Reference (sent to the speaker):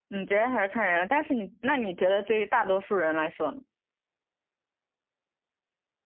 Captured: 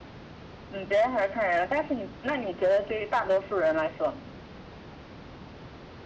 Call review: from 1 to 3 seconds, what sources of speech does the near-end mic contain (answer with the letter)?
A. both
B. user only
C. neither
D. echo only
D